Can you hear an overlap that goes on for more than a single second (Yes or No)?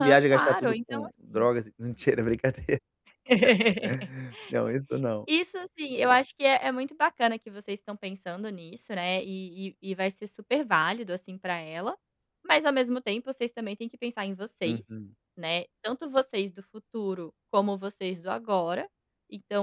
Yes